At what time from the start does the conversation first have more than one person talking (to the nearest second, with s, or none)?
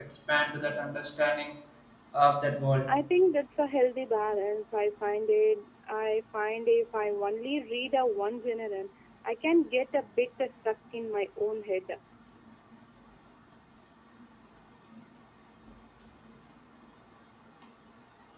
none